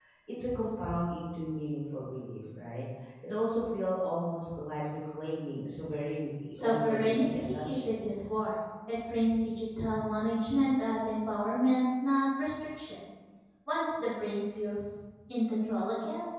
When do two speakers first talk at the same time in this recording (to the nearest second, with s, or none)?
7 s